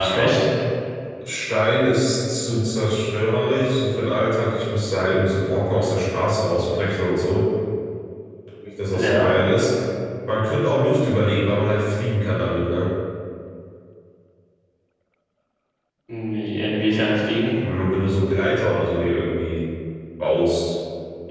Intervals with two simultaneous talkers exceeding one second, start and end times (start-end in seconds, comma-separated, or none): none